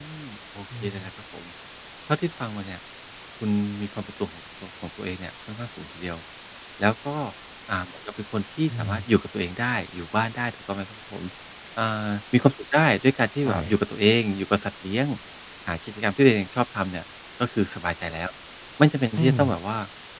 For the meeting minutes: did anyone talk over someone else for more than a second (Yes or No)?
No